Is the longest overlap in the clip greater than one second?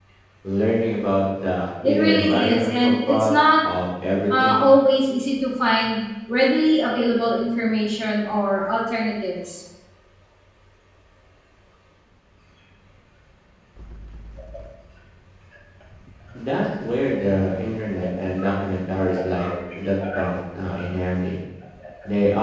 Yes, from 1.8 s

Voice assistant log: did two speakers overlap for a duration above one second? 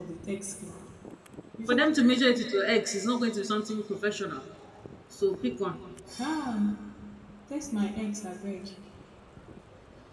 No

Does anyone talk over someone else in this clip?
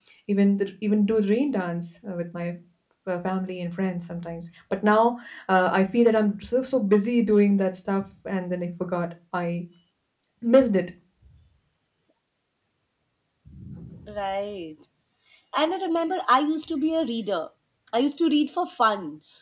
No

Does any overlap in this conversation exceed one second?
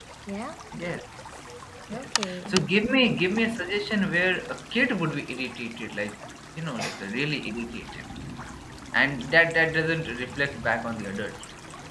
Yes, from 1.9 s

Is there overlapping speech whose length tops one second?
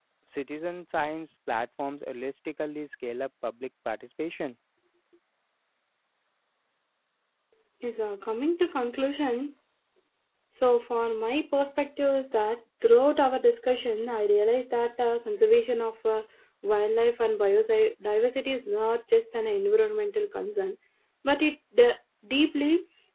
No

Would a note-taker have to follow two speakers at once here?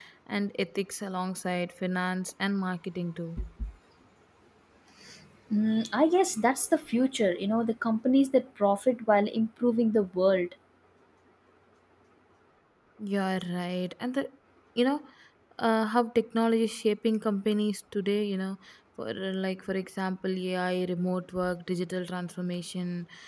No

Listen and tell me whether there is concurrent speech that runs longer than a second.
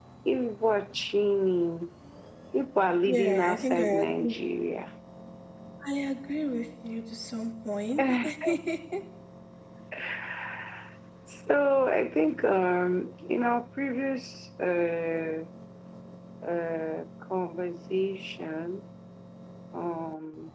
Yes, from 3.0 s

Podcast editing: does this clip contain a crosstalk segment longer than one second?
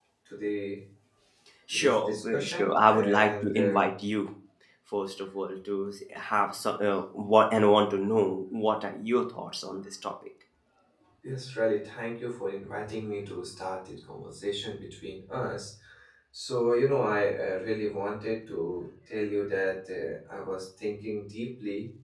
Yes, from 1.7 s

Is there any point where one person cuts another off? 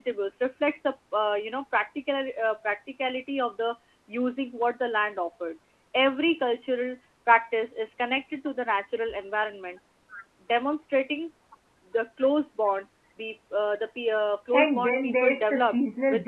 Yes, from 14.5 s

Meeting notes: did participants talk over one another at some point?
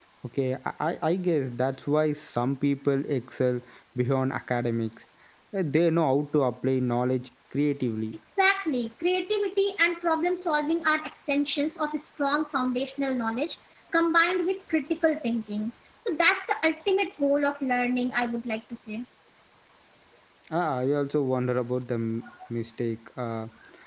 No

